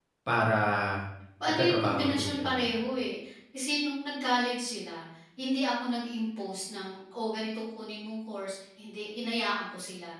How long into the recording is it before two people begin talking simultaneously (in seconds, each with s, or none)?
1.4 s